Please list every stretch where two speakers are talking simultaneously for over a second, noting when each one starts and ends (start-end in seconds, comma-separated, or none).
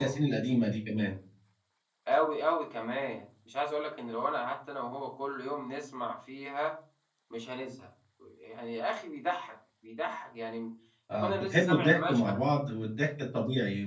11.1-12.4